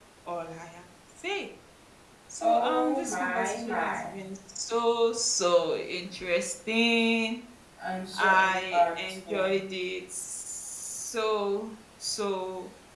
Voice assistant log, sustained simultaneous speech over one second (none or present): present